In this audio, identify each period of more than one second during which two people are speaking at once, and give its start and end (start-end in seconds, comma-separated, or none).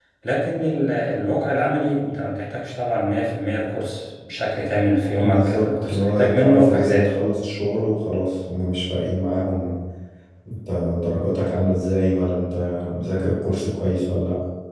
5.2-7.1